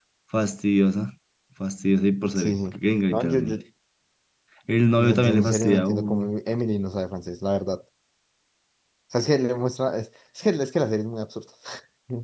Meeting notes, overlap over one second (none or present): present